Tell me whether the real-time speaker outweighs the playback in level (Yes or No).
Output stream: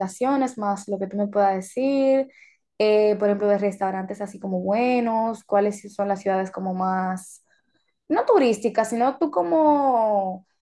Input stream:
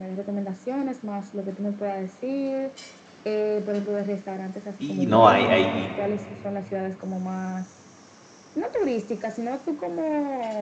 Yes